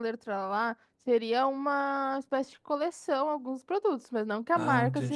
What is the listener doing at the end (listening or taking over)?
listening